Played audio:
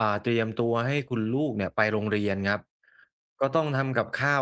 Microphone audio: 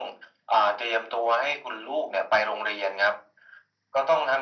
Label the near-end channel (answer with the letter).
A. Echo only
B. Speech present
A